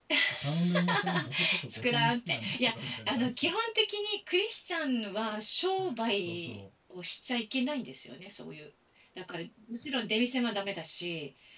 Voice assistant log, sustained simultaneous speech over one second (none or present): present